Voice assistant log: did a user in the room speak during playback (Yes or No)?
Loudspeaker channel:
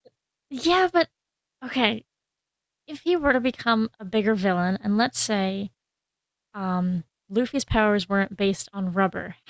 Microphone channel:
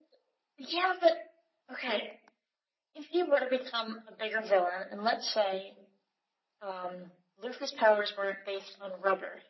No